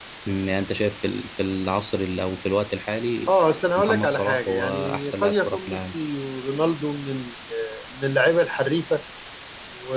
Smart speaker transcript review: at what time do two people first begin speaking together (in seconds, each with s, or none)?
3.8 s